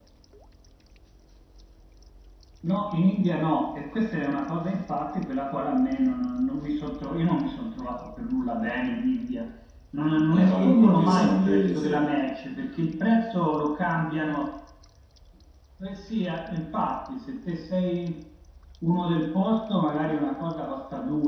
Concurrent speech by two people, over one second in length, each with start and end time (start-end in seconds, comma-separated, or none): 10.3-11.9